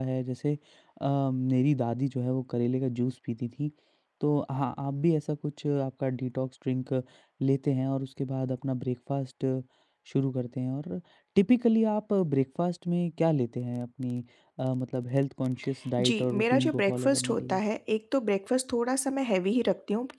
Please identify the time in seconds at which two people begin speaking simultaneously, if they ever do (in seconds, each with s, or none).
16.0 s